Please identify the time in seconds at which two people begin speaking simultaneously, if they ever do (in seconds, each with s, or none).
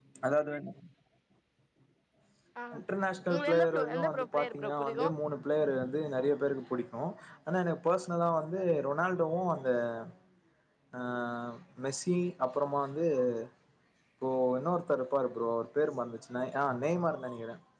3.3 s